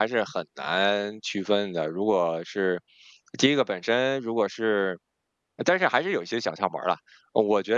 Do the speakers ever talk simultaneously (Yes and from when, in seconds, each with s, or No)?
No